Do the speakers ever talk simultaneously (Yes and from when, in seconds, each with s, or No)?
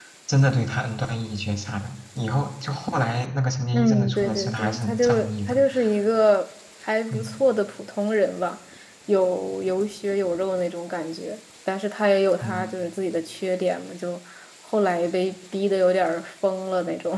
Yes, from 3.7 s